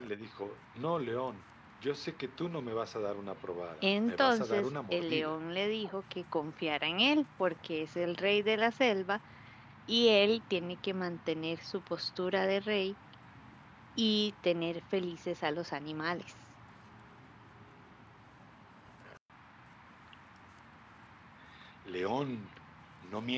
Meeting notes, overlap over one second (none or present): present